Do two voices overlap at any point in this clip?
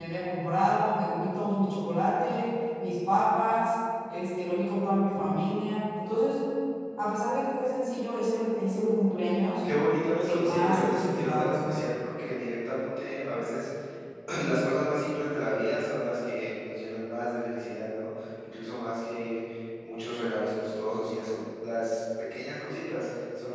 Yes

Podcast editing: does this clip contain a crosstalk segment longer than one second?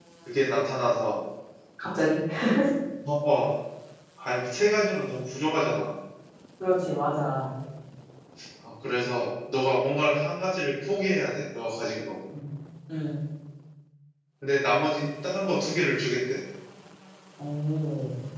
No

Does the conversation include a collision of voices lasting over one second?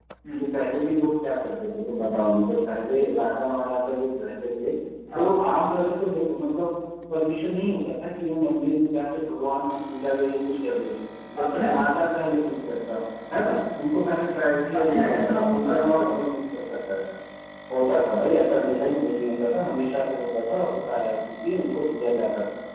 Yes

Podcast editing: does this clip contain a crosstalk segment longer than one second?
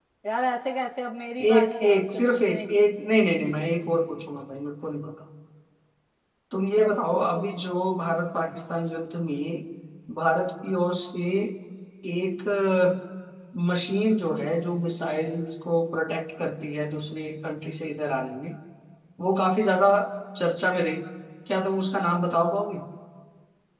Yes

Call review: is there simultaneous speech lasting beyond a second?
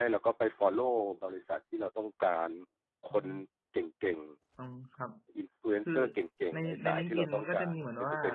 Yes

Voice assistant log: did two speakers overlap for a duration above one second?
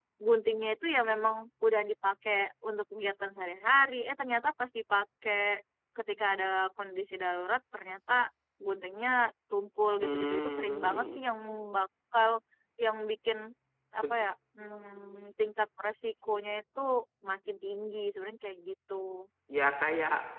Yes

